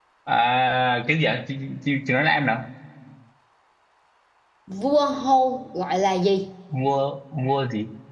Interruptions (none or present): none